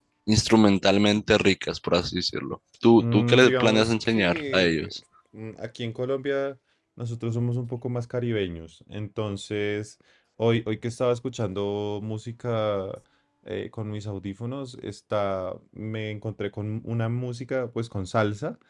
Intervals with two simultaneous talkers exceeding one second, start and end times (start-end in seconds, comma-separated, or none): 3.0-4.9